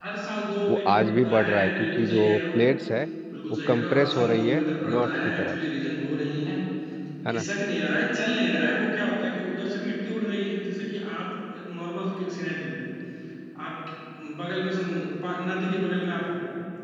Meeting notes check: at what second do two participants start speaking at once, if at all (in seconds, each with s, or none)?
0.7 s